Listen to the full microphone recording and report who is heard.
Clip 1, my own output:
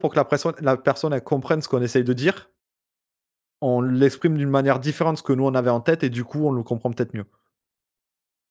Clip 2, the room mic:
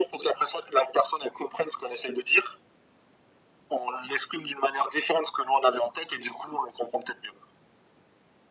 echo only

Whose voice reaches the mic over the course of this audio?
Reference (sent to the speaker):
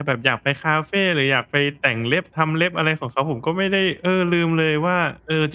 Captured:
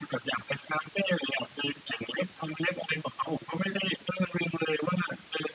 echo only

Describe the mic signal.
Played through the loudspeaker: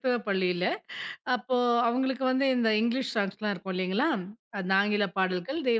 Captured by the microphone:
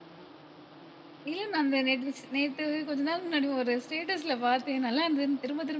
user only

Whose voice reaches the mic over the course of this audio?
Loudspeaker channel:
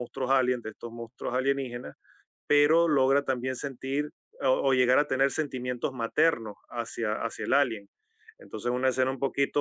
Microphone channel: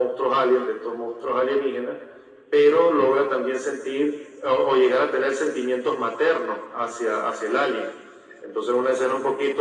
echo only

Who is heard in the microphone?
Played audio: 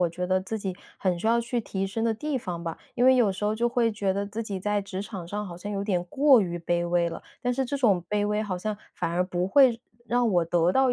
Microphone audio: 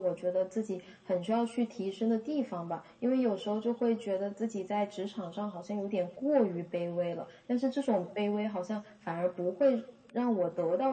echo only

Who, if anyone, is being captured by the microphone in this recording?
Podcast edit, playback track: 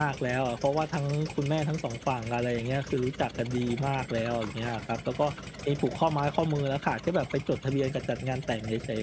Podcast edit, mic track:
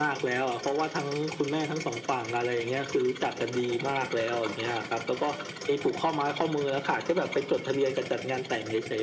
echo only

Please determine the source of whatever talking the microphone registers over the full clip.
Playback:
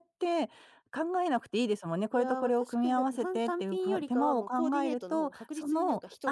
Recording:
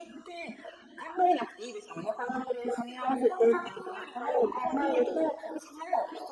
echo only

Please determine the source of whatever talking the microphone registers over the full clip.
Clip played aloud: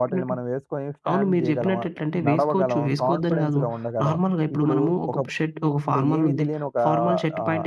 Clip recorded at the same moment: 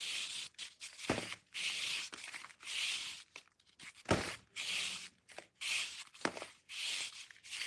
neither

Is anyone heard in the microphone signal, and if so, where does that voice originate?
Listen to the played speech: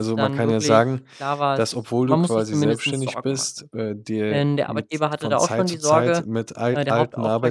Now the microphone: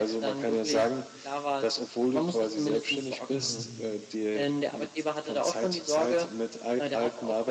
both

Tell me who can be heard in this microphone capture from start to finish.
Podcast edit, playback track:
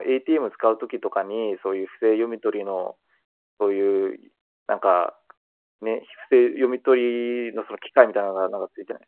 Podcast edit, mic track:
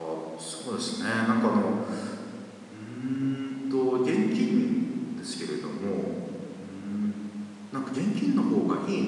user only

